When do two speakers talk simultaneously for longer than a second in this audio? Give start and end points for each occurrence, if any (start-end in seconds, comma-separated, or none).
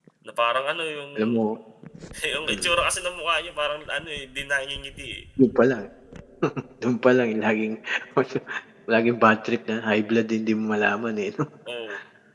none